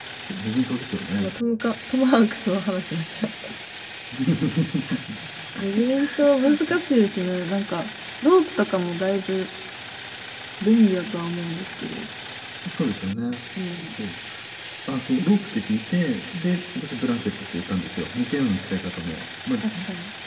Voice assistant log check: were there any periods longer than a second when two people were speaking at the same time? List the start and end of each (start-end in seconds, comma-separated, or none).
none